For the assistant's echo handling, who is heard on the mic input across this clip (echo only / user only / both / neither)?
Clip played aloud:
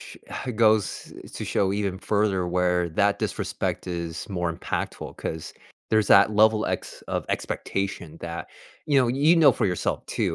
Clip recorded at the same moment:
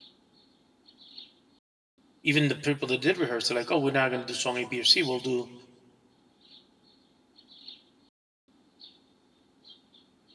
user only